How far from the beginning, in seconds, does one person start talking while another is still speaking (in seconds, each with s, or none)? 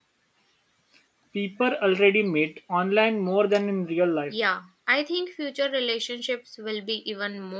none